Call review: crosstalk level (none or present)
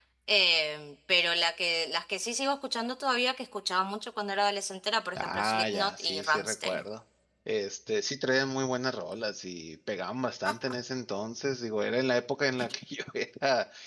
present